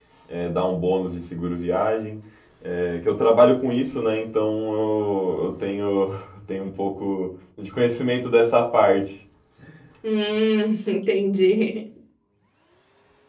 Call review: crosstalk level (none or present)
none